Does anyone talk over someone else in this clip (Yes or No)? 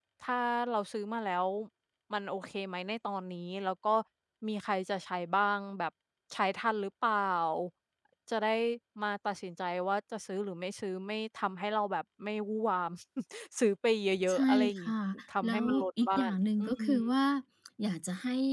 Yes